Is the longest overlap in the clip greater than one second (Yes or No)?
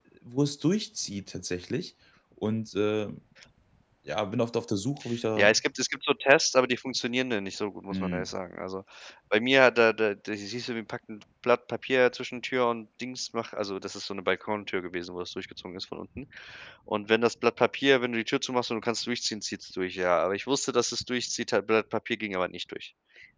No